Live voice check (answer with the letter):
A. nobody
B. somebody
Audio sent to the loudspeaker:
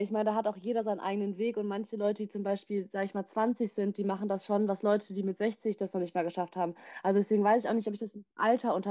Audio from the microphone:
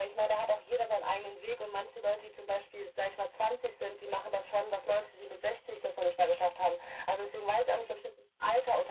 A